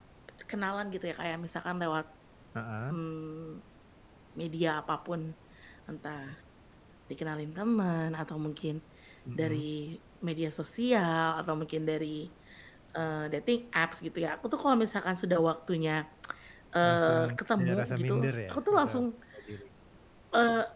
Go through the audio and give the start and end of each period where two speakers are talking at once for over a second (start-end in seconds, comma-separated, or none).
17.6-19.1